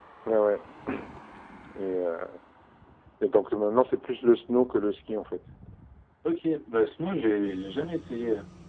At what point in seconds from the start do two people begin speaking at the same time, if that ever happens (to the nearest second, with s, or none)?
none